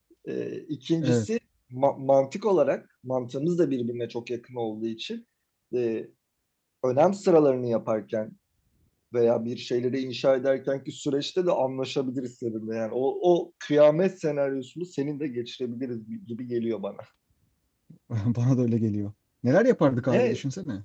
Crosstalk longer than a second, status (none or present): none